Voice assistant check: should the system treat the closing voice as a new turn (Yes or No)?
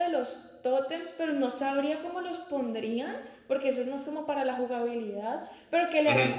No